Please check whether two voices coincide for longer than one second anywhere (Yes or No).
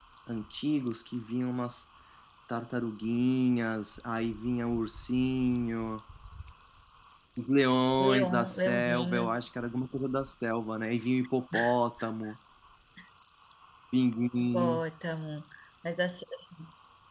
Yes